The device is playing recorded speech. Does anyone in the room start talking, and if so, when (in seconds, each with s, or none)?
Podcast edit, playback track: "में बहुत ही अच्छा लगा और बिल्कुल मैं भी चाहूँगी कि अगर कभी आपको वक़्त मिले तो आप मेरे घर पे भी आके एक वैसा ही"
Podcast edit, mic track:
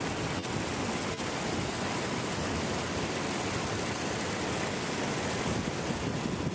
none